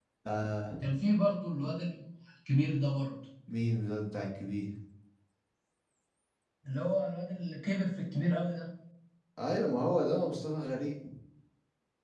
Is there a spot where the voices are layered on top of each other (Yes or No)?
No